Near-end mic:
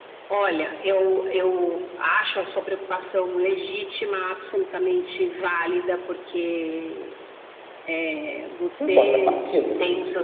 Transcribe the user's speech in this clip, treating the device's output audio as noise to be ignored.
em contrapartida,

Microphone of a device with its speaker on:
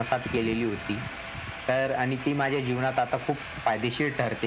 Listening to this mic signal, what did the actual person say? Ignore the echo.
none

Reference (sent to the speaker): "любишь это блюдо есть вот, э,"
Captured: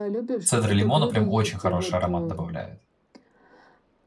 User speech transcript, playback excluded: Цедра лимона прям очень хороший аромат добавляет.

